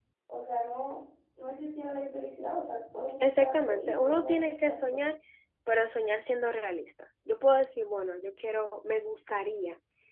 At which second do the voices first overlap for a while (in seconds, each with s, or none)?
3.2 s